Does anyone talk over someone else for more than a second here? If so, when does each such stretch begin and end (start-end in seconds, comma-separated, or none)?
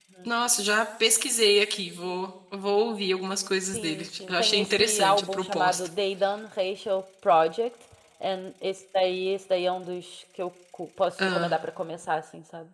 3.7-5.9